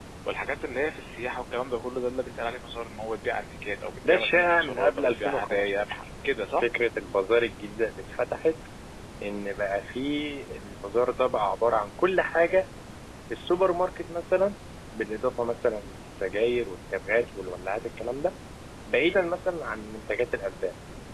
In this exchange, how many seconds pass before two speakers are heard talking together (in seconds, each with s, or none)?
4.0 s